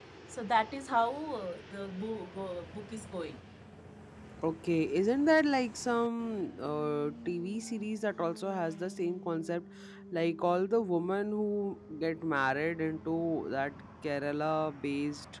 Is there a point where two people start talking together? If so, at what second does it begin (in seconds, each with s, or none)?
none